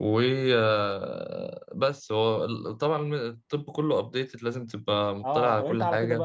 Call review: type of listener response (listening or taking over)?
taking over